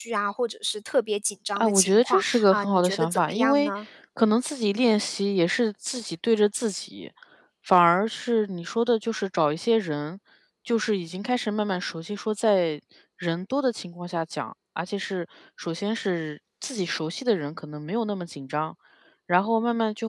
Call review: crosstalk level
present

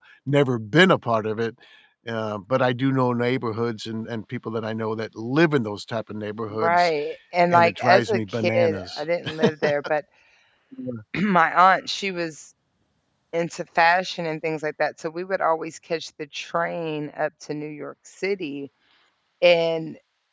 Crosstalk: present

